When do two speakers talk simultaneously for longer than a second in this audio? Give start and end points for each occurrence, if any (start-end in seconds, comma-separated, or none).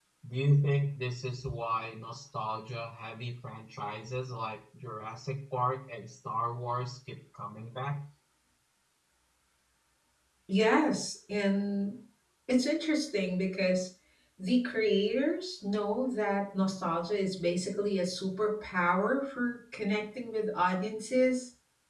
none